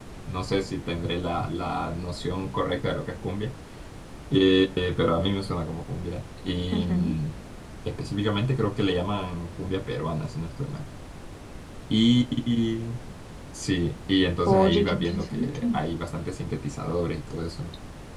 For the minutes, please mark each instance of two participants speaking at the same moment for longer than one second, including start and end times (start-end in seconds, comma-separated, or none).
14.5-15.8